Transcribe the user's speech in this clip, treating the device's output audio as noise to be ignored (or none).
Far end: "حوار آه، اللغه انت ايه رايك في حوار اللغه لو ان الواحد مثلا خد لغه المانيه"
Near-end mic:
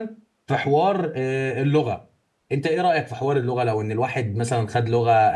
none